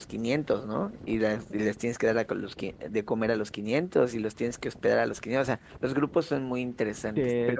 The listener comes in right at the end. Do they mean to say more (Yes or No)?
Yes